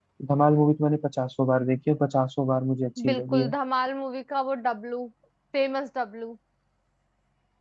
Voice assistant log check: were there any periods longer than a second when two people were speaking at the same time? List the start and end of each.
none

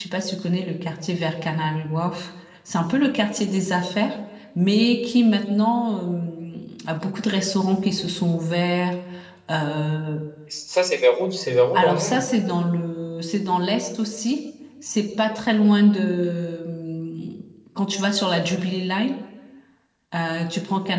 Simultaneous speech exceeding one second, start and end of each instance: none

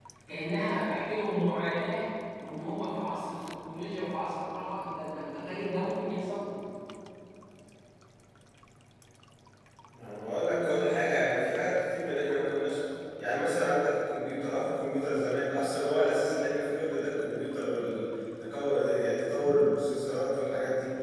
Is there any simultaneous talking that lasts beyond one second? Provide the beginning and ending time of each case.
none

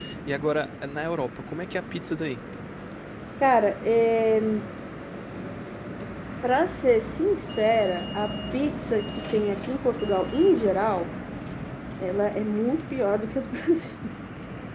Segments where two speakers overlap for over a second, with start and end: none

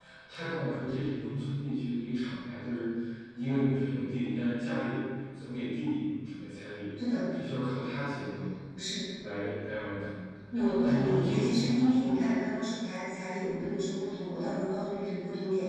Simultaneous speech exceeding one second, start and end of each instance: 10.8-12.3

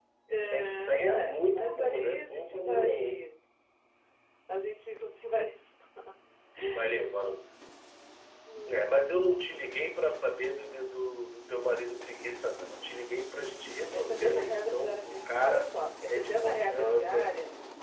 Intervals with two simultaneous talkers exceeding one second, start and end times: 0.5-3.2, 13.9-15.7, 16.1-17.3

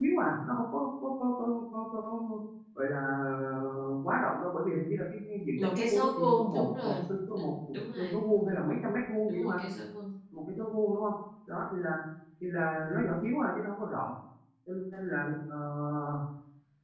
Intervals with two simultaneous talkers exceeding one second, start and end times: 5.6-6.9

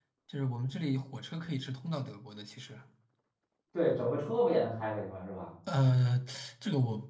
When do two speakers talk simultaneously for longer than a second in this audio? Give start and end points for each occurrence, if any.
none

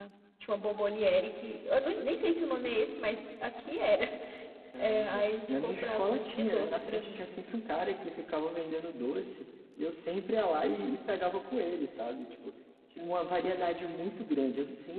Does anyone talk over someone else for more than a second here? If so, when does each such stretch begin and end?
4.8-7.2

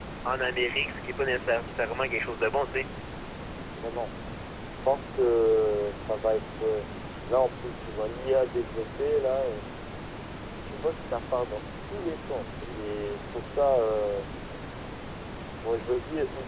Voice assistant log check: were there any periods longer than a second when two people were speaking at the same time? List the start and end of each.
none

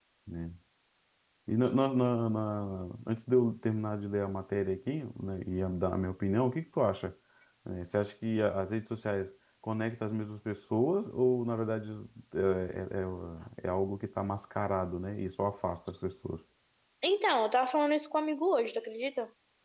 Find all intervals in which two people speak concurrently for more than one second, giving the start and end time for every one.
none

